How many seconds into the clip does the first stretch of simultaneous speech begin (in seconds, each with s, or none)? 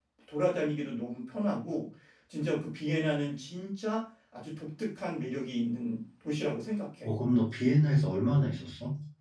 none